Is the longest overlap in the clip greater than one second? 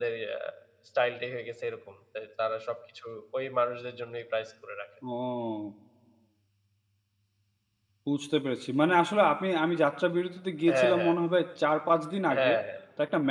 No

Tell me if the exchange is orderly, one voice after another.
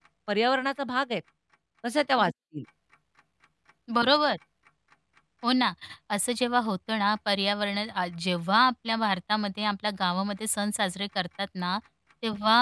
Yes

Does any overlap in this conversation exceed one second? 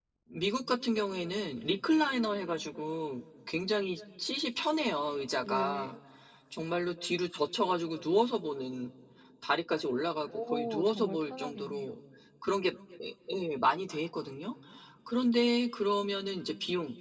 Yes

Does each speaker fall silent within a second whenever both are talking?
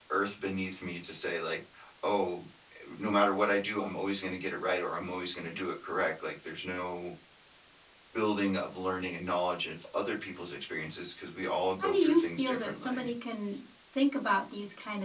No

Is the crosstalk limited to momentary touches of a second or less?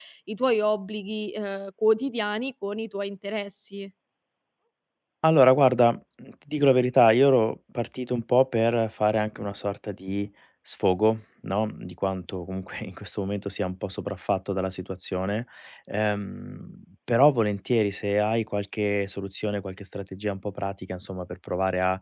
Yes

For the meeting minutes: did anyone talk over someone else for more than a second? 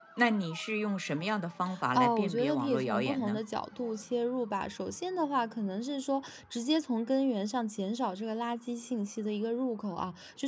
Yes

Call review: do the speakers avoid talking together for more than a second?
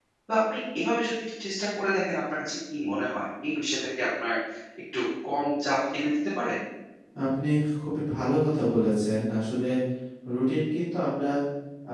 Yes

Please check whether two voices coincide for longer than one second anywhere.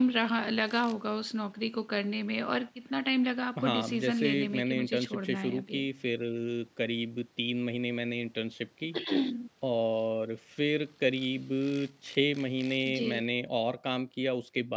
Yes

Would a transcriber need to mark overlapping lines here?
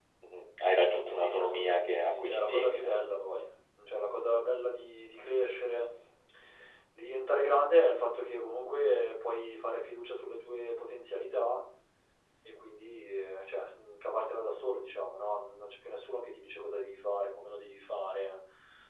Yes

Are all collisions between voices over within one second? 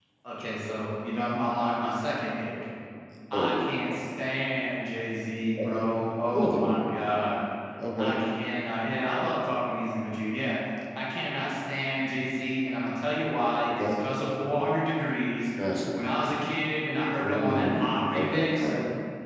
No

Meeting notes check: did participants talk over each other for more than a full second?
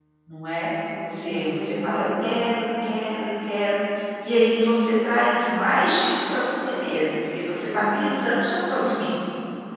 Yes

